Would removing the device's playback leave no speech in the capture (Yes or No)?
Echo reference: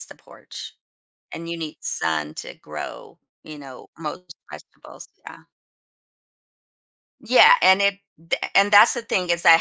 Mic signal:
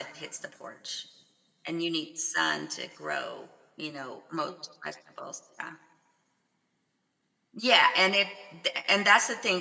Yes